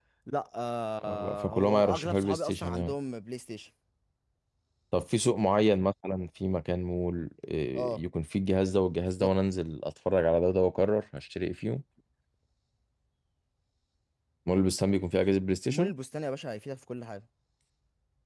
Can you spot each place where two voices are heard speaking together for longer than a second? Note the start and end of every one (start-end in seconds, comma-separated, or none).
1.1-3.0